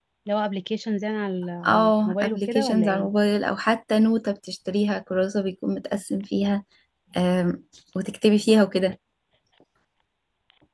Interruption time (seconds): 1.6 s

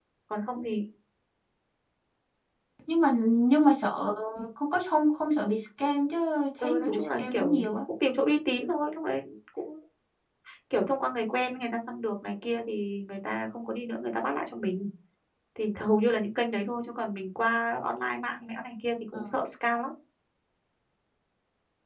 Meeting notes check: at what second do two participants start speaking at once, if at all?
6.6 s

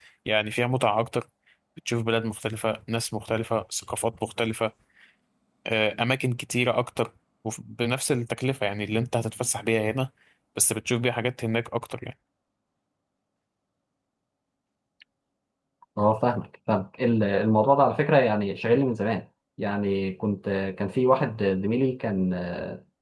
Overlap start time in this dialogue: none

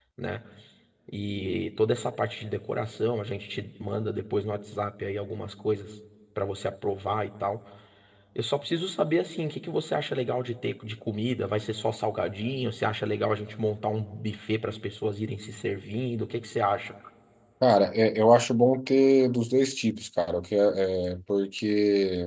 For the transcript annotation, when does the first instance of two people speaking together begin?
none

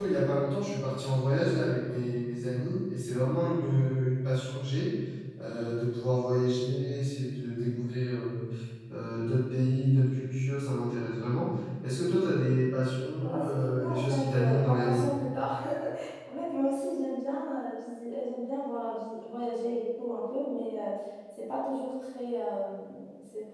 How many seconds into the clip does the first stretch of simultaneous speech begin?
13.2 s

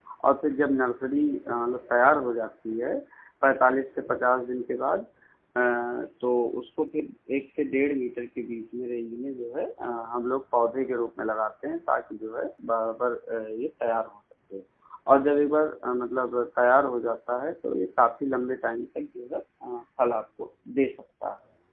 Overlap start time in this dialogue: none

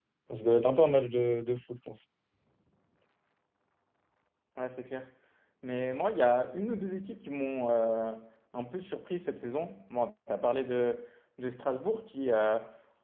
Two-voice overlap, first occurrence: none

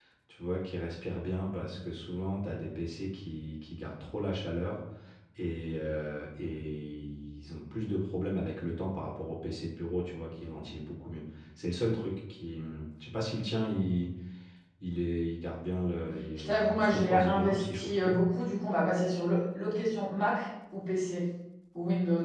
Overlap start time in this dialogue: 16.4 s

